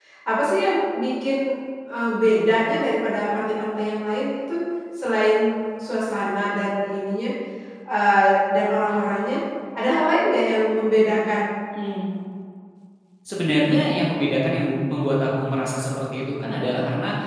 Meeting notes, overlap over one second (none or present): none